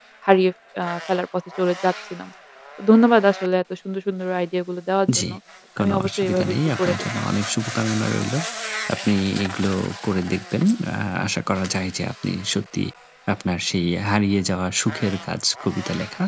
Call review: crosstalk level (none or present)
present